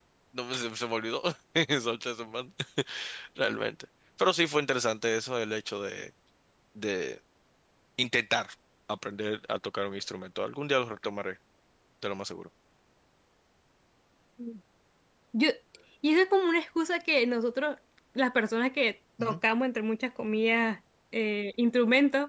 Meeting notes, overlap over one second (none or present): none